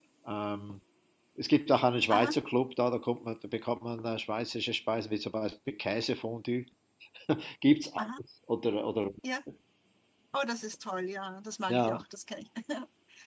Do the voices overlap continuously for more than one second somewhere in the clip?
No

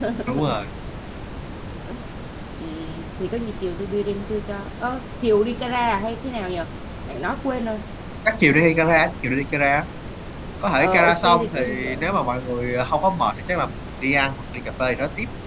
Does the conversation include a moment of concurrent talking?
Yes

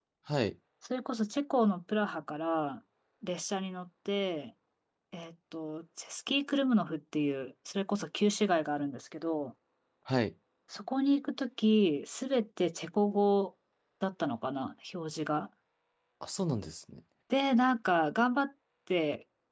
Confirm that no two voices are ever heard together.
Yes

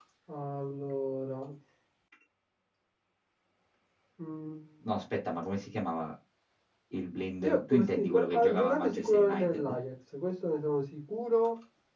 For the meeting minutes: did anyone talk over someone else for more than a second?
Yes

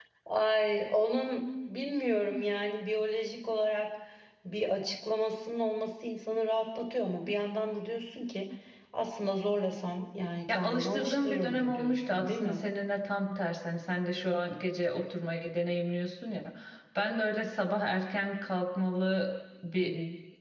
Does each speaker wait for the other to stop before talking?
No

